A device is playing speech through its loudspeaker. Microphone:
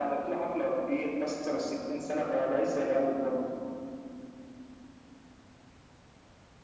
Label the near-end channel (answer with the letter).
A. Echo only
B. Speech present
A